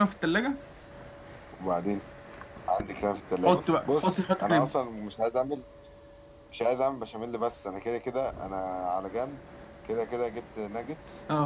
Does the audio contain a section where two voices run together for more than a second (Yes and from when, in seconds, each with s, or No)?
Yes, from 3.4 s